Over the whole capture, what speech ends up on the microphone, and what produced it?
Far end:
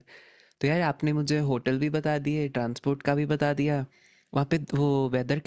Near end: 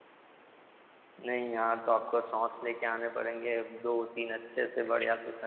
user only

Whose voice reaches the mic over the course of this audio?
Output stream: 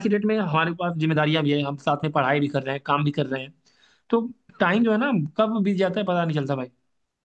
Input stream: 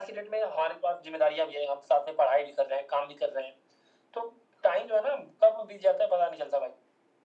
echo only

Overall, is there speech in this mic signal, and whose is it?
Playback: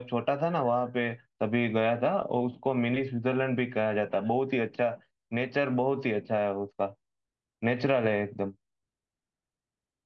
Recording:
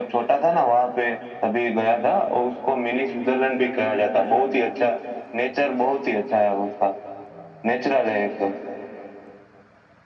echo only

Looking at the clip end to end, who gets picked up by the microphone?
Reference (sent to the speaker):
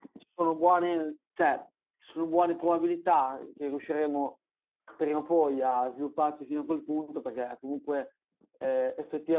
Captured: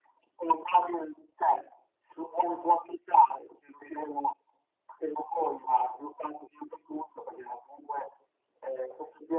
echo only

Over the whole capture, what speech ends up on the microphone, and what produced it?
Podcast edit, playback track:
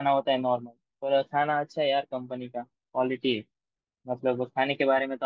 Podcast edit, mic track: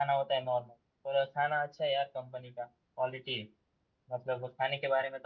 echo only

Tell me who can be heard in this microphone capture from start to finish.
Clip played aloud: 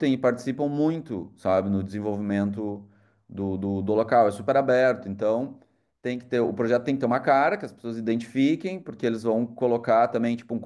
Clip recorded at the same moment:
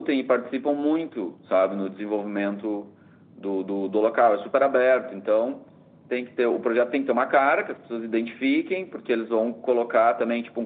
echo only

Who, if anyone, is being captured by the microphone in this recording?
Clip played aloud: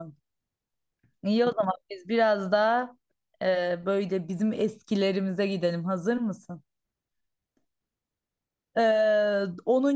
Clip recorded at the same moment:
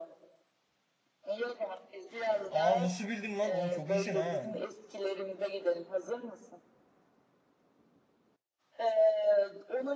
both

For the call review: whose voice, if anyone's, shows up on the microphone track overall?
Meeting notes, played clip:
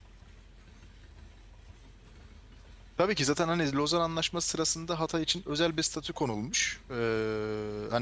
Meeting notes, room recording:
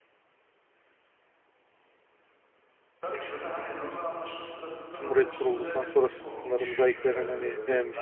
both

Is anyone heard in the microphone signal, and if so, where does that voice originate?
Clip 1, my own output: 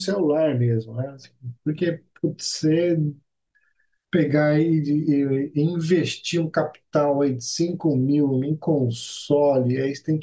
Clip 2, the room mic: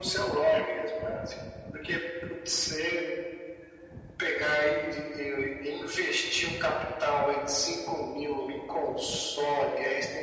echo only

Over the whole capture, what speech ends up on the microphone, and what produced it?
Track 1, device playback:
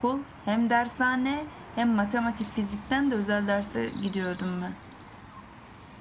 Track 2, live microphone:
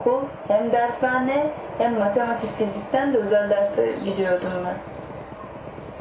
echo only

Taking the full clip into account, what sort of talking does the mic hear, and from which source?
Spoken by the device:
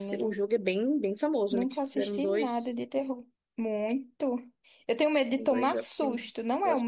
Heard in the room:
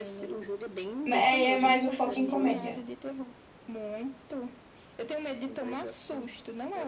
both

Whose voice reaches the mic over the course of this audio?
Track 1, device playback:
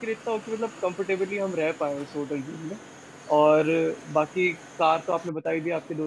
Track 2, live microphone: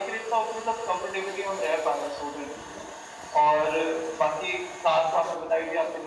echo only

